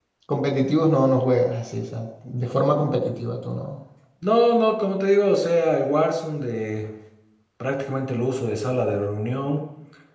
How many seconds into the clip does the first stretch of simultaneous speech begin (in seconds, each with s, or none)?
none